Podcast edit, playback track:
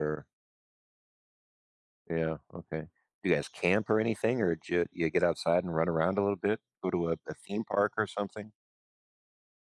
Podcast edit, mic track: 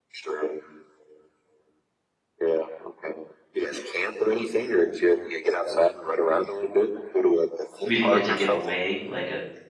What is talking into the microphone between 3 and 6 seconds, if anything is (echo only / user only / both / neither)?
echo only